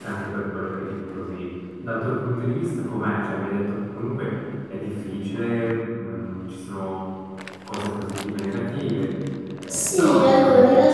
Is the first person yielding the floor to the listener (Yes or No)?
Yes